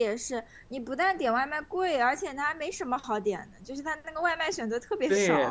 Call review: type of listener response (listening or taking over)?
taking over